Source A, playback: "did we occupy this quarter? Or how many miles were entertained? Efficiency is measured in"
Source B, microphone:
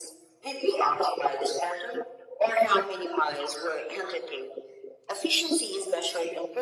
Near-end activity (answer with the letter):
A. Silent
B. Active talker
A